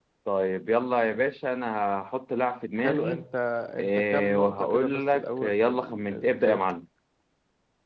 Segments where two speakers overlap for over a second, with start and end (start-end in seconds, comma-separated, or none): 3.8-6.7